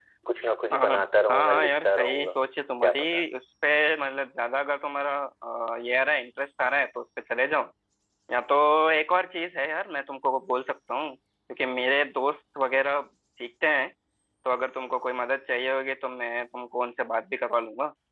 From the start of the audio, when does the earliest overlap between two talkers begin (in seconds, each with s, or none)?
0.7 s